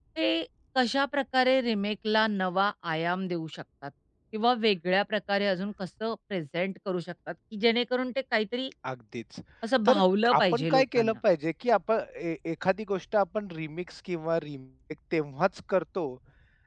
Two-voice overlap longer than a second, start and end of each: 9.9-11.2

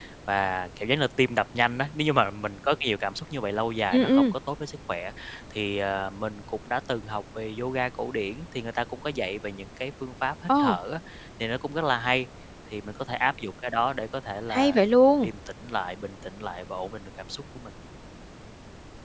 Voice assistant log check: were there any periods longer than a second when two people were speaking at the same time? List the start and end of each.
none

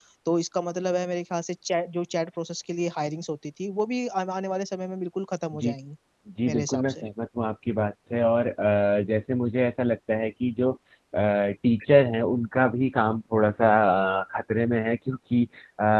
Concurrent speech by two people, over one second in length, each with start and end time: none

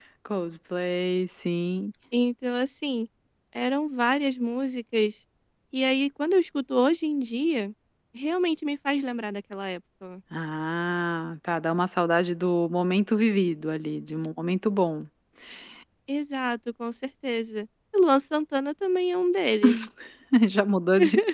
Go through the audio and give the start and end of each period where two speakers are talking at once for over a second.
none

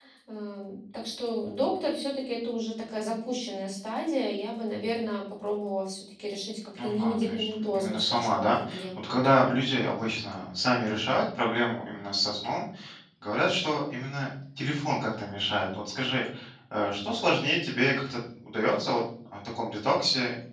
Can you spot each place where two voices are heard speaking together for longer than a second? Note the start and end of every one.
6.8-9.1

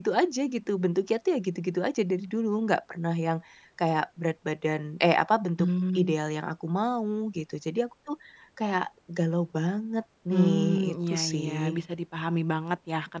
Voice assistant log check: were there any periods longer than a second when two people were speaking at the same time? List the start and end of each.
10.3-11.5

